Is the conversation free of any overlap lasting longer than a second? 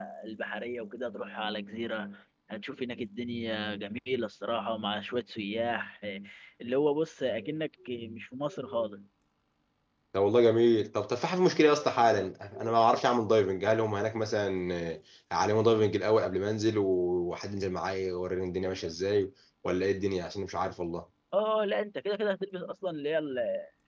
Yes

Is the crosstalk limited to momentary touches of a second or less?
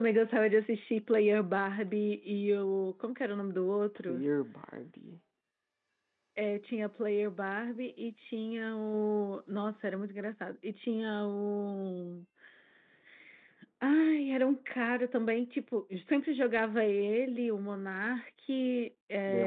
Yes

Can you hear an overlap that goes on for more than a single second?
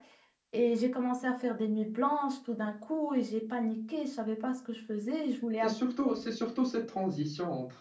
No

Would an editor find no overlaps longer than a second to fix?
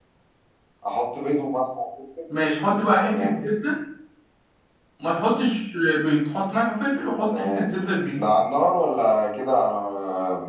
Yes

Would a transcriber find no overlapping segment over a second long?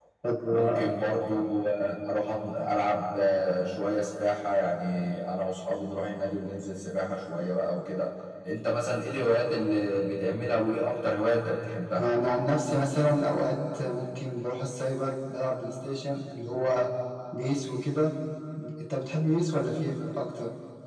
Yes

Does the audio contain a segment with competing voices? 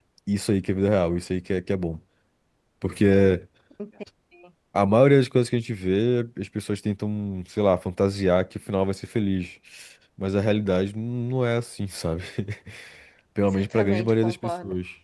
Yes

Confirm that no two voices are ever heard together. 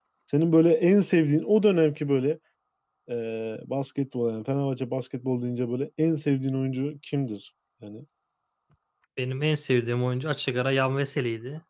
Yes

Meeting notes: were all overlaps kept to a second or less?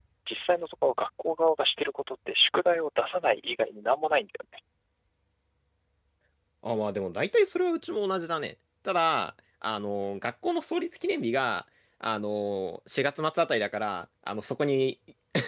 Yes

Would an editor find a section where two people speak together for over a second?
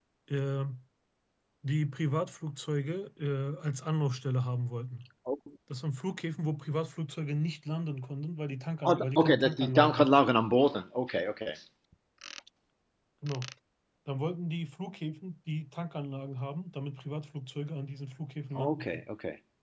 Yes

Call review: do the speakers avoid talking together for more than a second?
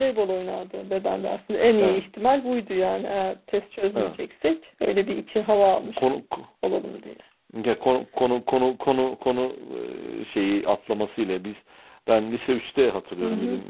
Yes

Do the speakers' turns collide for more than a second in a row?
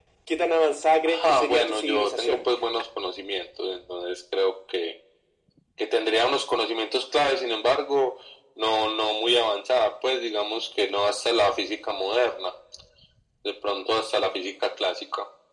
Yes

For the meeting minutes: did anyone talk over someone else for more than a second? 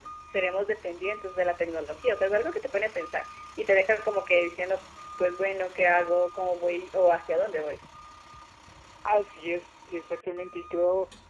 No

